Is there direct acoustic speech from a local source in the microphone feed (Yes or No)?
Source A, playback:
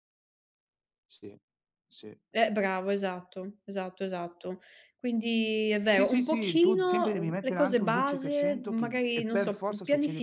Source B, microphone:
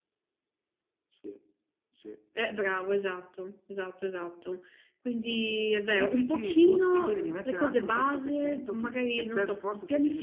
No